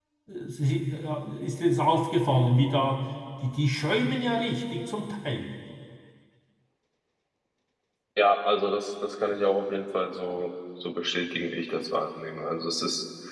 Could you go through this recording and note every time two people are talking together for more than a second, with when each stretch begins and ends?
none

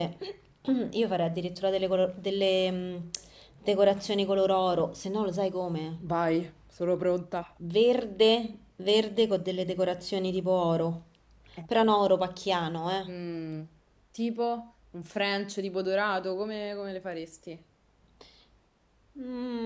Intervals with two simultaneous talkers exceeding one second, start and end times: none

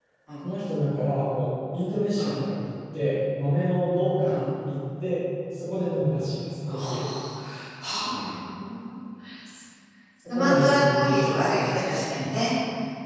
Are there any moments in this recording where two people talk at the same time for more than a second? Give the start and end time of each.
10.3-11.8

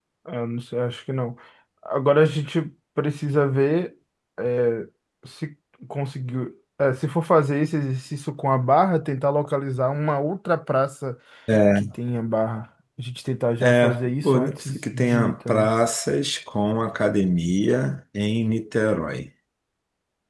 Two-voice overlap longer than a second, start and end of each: 13.6-15.7

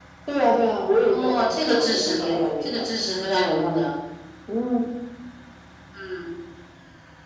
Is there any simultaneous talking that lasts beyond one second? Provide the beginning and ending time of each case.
0.9-2.8

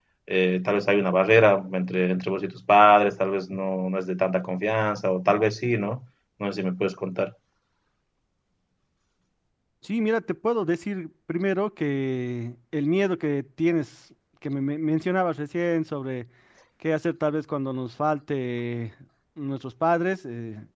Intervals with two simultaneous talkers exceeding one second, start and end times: none

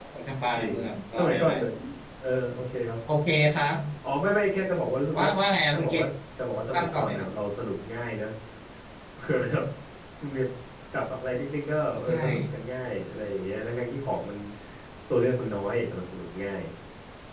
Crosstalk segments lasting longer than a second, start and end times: none

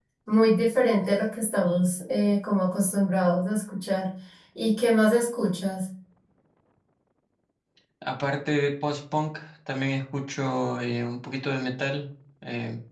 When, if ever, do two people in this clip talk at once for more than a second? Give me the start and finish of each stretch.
none

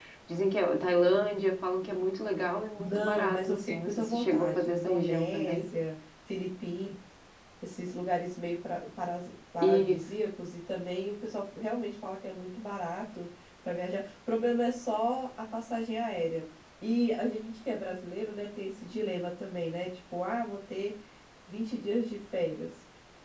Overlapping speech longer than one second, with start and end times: 2.8-5.7

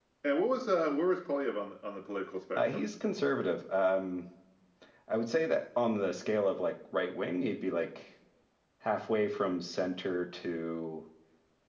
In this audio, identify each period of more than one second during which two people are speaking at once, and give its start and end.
none

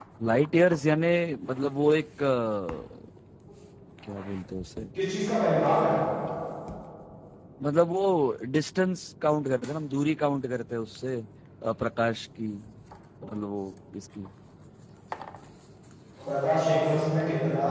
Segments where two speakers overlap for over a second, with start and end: none

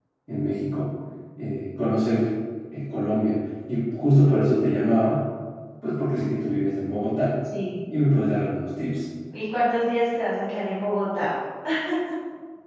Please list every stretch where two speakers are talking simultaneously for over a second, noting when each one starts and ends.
none

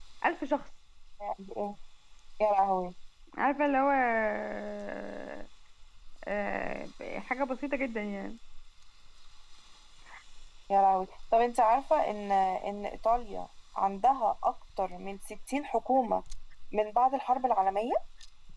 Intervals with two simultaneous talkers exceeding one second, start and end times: none

